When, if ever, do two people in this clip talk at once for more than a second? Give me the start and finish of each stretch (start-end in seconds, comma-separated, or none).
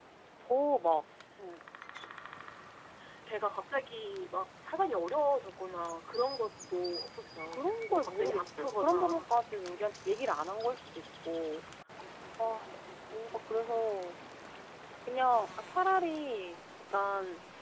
7.5-9.2